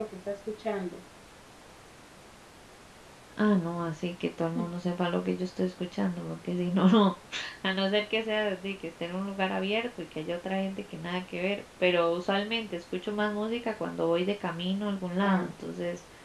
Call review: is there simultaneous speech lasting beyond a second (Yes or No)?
No